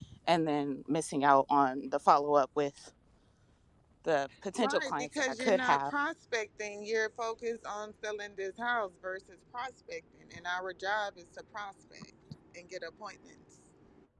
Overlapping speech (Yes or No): Yes